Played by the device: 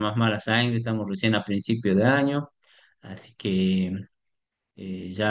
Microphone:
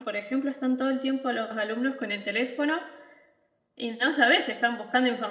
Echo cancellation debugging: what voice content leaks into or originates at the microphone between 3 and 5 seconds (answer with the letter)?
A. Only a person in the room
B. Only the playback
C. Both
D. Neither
A